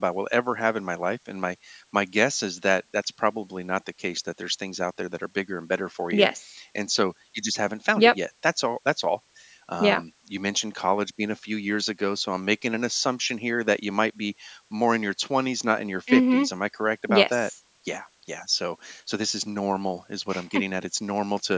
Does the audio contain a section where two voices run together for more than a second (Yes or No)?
No